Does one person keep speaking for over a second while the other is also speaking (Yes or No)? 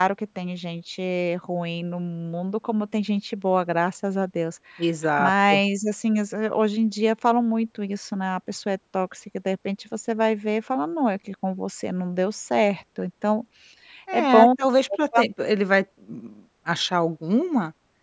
No